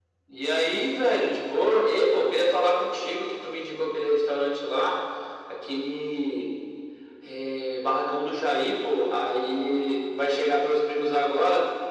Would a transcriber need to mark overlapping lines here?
No

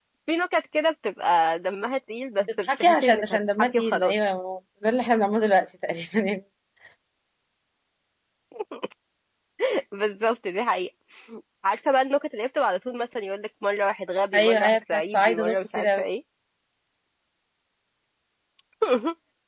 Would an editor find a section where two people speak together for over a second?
Yes, from 2.6 s

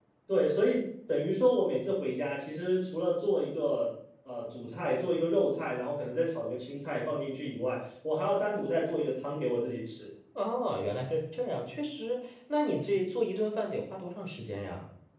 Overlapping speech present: No

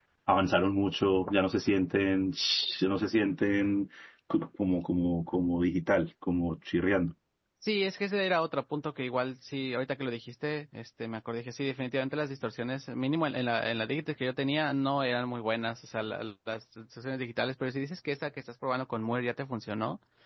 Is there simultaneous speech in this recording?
No

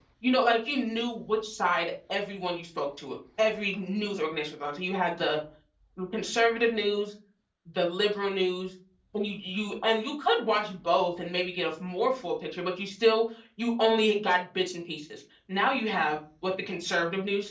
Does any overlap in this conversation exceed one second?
No

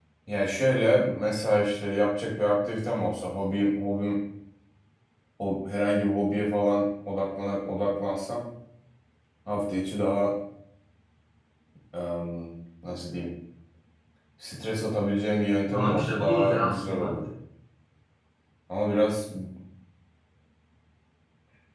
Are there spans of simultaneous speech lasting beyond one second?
Yes, from 15.7 s

